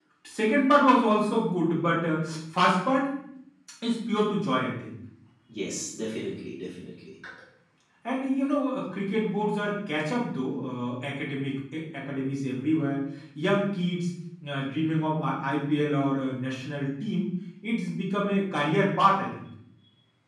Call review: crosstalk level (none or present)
none